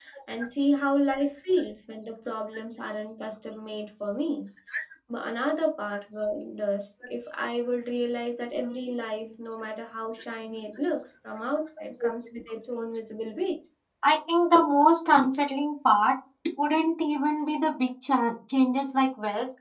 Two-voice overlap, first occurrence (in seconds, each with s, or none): none